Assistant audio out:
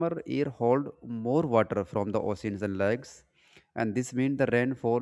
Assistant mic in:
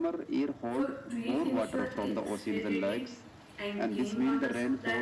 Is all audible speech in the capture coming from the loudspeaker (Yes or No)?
No